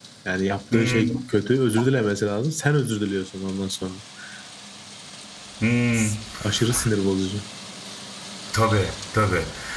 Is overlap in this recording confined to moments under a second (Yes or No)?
Yes